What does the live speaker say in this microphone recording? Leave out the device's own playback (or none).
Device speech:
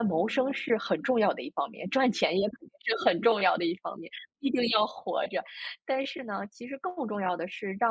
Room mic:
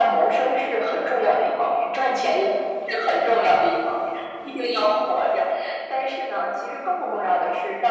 none